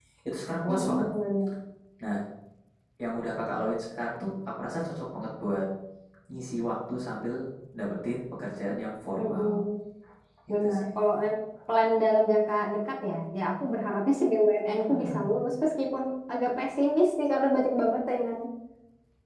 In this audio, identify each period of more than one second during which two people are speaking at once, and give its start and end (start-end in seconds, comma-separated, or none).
none